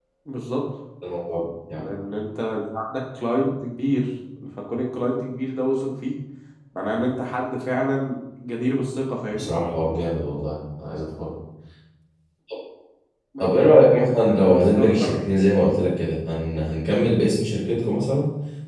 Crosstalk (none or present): present